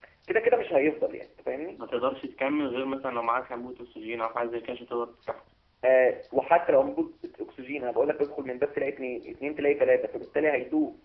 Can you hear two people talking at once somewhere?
No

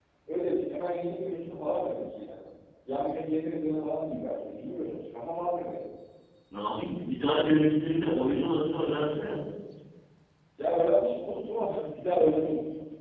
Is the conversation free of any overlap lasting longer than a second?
Yes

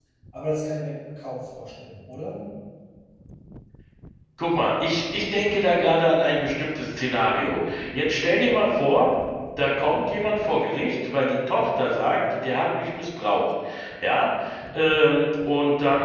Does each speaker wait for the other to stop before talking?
Yes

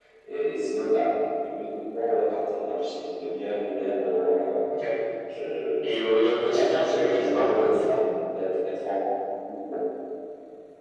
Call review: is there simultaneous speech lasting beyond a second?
Yes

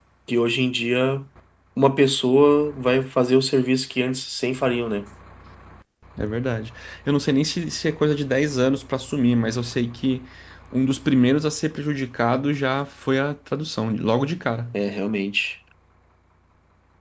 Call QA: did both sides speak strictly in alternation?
Yes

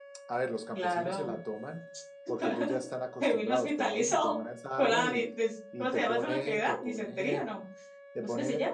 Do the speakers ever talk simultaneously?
Yes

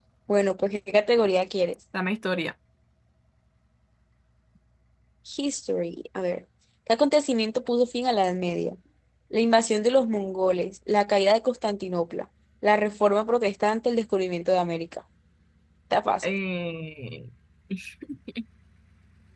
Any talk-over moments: No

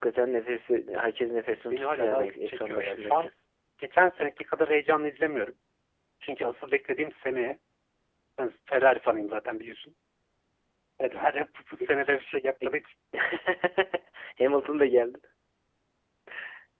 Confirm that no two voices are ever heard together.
No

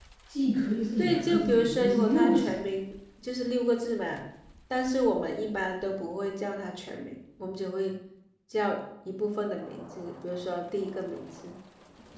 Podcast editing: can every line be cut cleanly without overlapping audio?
No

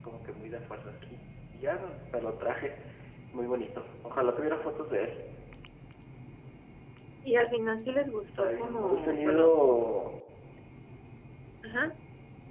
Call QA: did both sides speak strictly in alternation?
No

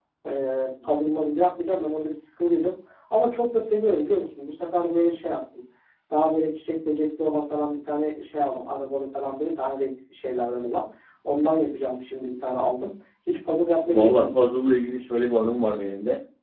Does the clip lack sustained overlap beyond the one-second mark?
Yes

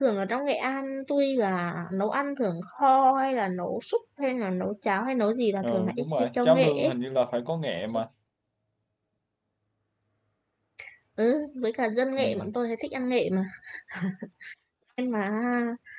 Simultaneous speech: Yes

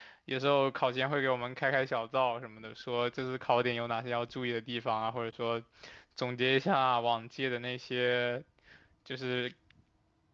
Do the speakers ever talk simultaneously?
No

